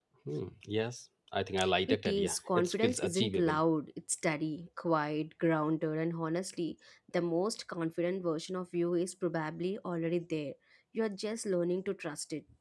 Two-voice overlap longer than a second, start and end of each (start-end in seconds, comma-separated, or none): 1.9-3.6